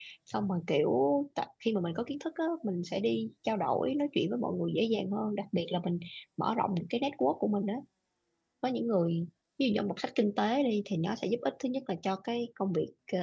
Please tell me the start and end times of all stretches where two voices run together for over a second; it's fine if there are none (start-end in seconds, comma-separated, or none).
none